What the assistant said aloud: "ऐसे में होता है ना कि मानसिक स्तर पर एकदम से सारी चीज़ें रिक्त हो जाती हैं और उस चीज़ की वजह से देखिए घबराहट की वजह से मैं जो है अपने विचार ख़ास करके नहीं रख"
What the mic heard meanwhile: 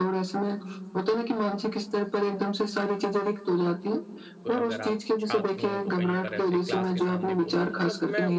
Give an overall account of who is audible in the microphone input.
both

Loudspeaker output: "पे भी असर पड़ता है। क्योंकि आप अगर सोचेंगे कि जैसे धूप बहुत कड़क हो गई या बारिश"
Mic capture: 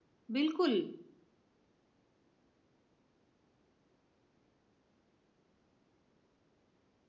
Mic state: user only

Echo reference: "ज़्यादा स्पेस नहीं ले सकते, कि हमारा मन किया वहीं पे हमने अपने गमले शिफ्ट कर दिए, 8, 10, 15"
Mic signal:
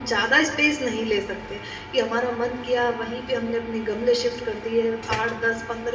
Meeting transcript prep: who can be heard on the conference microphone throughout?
echo only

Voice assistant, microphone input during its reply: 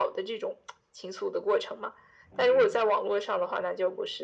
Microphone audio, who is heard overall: both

